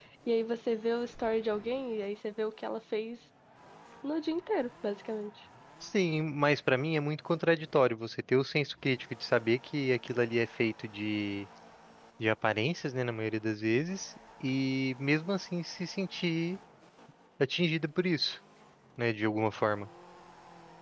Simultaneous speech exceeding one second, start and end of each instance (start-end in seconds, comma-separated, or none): none